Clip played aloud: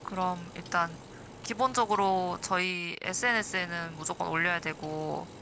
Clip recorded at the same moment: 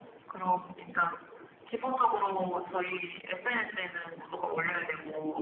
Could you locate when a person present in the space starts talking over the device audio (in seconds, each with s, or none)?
none